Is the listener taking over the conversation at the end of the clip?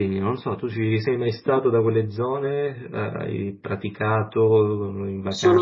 Yes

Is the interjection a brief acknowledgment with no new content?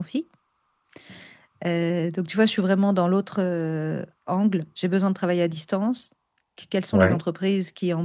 Yes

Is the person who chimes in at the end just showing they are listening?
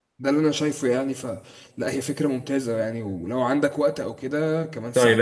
No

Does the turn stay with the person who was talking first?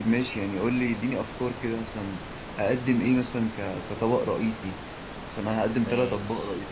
No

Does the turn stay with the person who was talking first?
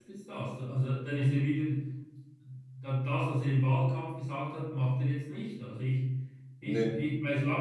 Yes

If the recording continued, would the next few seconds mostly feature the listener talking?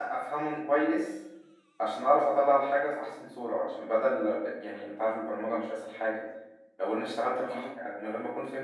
No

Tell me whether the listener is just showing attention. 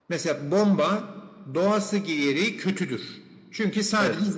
Yes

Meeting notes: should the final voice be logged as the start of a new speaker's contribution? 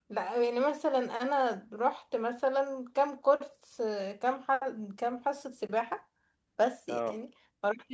No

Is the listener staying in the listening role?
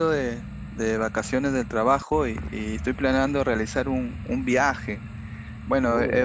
Yes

